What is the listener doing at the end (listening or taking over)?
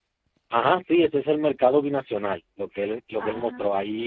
listening